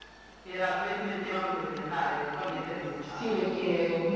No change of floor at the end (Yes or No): No